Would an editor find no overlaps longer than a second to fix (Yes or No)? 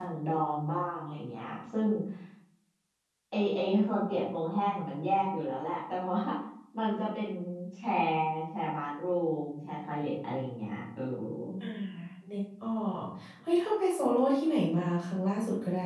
Yes